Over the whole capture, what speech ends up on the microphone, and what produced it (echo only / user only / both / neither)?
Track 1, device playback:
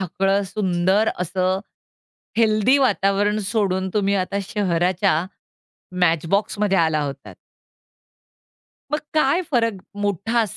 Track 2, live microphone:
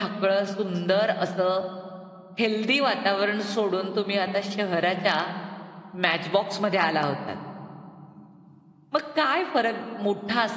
echo only